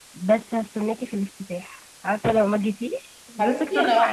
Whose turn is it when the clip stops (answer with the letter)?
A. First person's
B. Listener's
B